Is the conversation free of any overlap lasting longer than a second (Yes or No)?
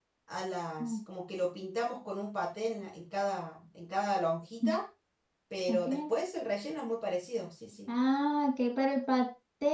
Yes